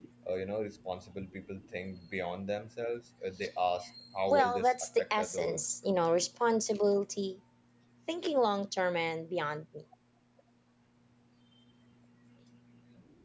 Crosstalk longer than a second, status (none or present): present